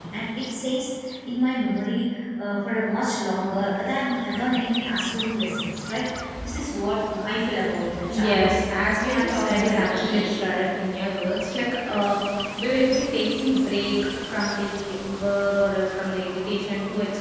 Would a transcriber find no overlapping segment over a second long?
No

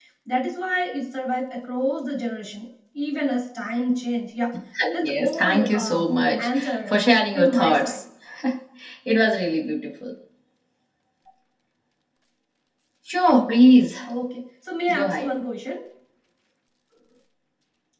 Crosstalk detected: Yes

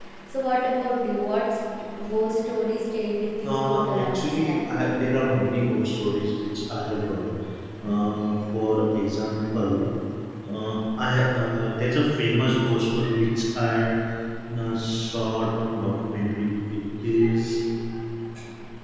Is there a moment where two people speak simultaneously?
Yes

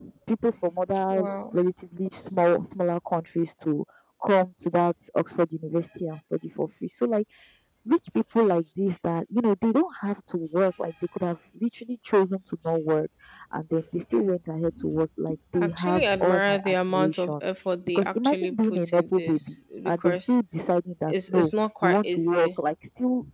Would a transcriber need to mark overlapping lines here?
Yes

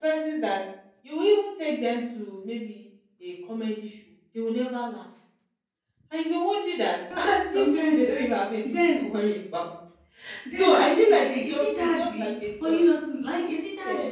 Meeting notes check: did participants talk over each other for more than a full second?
Yes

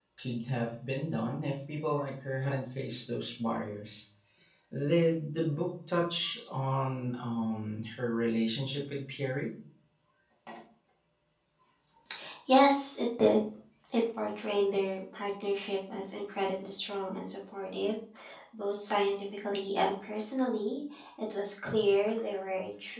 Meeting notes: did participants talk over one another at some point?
No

